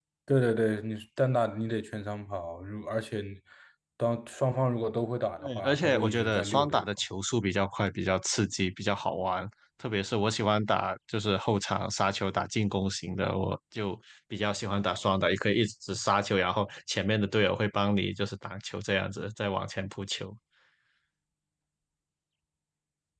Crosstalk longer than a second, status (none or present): present